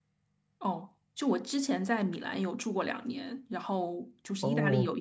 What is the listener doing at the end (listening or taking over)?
listening